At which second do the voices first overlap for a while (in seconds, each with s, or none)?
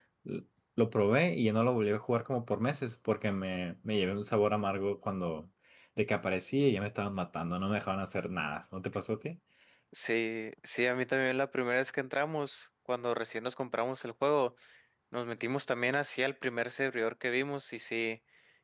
none